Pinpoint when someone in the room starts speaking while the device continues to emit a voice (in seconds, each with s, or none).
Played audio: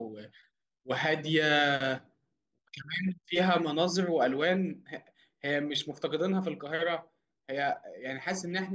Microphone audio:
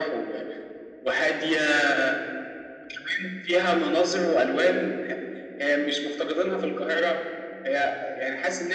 none